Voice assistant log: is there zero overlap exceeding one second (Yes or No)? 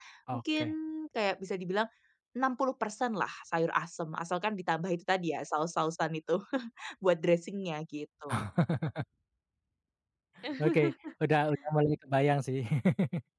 Yes